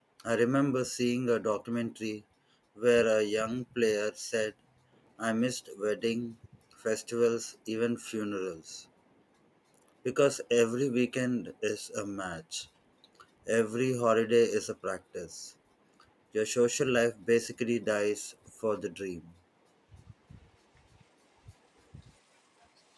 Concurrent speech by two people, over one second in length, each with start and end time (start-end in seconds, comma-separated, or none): none